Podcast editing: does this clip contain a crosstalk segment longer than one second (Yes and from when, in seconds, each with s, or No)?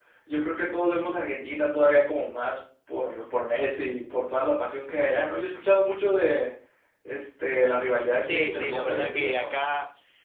Yes, from 8.2 s